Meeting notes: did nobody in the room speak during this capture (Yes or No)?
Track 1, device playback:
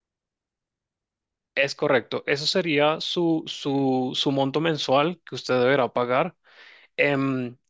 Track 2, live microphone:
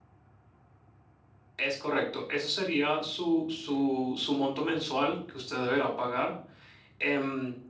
Yes